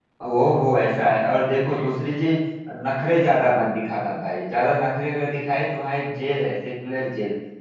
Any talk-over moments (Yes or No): No